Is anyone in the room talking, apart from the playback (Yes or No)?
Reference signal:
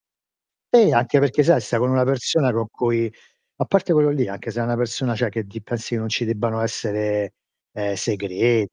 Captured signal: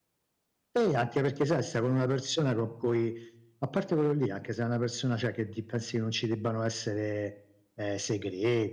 No